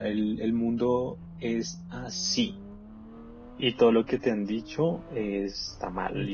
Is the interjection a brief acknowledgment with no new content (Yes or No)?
Yes